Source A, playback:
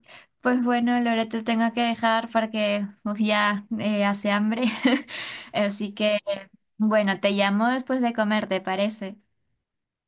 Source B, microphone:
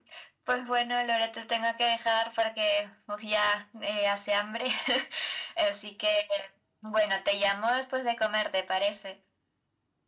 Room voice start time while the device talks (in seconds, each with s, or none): none